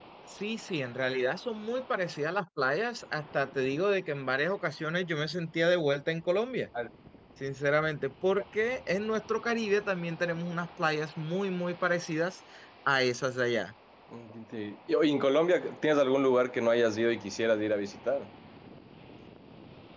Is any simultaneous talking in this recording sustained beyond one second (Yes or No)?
No